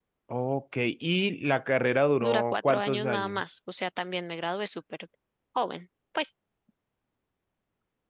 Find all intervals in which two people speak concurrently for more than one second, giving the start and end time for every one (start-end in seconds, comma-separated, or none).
2.2-3.4